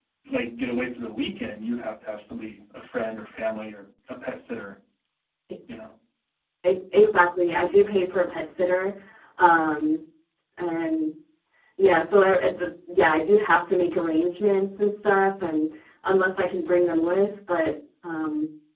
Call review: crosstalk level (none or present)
none